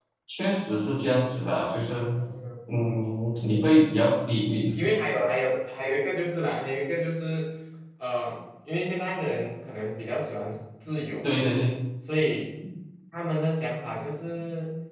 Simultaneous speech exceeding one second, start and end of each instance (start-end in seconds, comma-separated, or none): none